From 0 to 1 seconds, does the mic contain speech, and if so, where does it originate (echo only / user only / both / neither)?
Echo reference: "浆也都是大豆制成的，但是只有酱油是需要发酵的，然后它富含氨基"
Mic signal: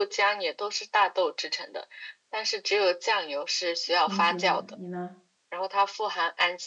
echo only